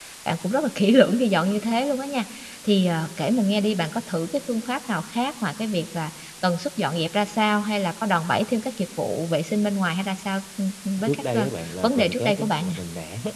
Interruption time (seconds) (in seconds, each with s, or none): 11.0 s